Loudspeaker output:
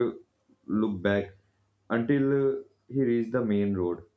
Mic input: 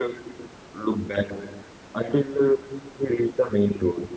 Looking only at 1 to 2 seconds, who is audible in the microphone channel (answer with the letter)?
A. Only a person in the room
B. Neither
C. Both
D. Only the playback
D